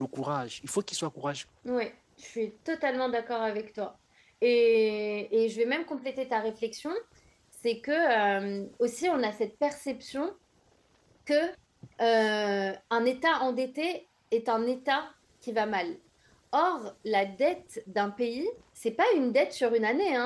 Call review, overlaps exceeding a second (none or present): none